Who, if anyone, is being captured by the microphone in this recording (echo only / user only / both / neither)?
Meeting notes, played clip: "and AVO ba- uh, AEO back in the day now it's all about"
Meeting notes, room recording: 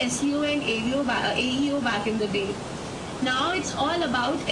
echo only